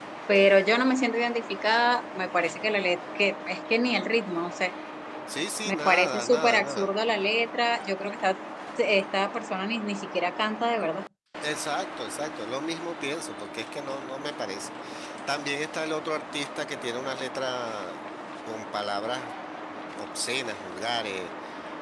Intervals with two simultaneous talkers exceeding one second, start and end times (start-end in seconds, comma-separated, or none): 5.7-6.9